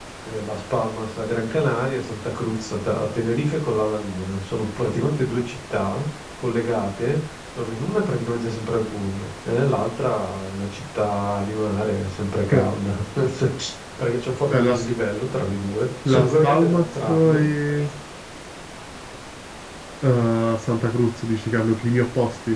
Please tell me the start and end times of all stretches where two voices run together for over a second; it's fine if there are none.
16.1-17.4

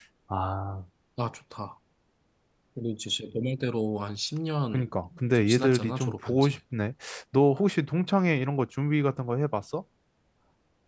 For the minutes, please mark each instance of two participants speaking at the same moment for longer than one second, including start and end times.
5.3-6.6

